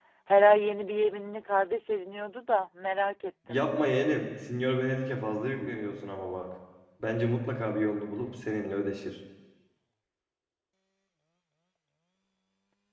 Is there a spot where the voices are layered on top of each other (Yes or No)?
No